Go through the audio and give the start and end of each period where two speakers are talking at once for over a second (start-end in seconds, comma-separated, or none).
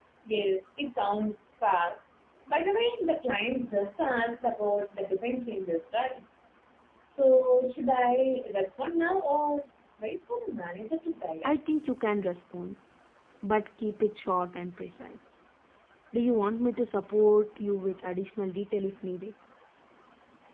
none